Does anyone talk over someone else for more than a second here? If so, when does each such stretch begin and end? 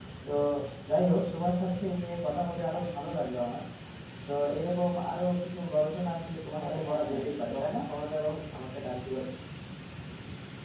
6.6-7.8

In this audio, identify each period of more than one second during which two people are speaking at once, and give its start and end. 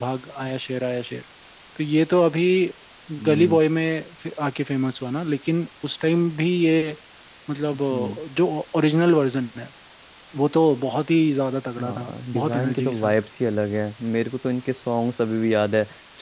11.8-13.1

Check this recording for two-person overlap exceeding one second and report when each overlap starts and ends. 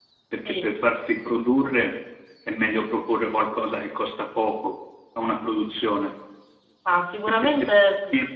none

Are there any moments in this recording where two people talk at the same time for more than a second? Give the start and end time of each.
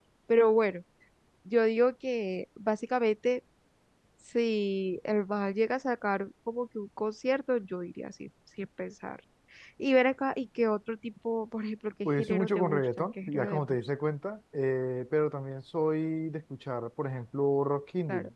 12.0-13.8

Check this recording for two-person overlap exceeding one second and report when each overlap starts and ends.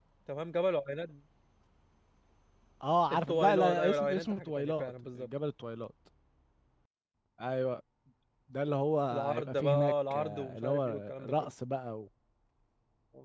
3.1-5.3, 9.1-11.5

